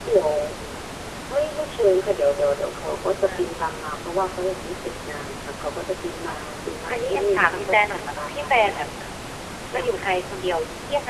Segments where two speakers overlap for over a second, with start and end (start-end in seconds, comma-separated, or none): 6.9-8.9